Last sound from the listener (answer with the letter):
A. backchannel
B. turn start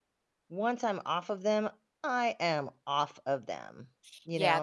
B